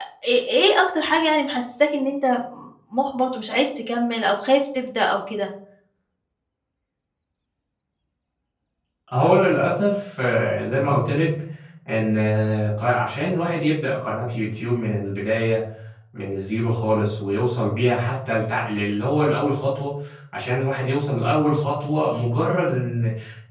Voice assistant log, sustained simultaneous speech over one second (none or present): none